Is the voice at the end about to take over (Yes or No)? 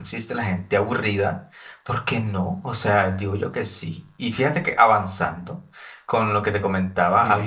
Yes